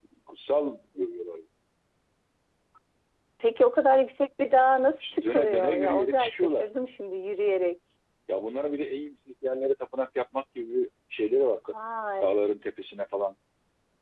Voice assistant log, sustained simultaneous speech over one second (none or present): present